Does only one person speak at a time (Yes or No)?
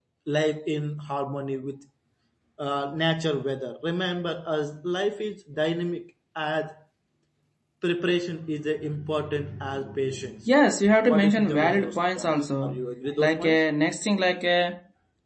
No